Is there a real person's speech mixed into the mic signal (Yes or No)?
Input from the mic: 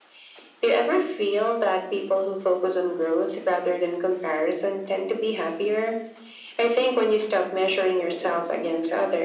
No